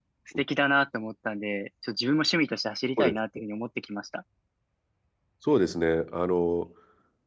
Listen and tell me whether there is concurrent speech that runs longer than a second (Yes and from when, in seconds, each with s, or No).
No